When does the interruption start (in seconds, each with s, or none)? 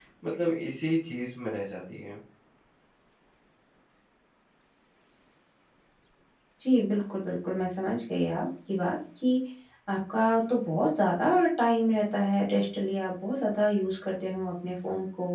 none